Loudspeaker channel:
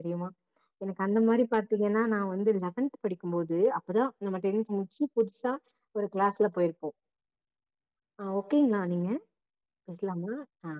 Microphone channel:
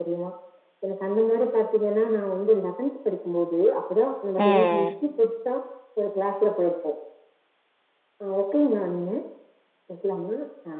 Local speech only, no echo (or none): ம்